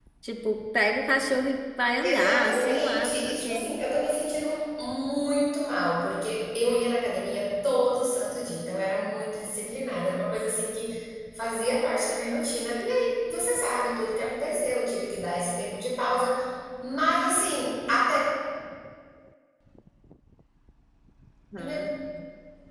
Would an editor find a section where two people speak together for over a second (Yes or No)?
Yes